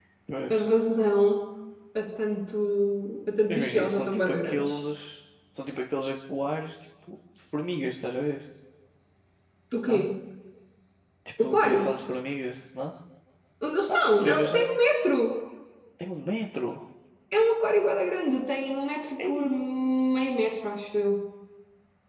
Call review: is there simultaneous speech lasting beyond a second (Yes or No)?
Yes